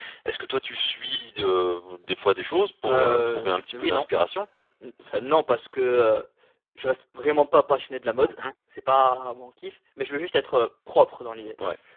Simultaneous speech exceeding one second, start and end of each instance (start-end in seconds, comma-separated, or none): 2.9-4.1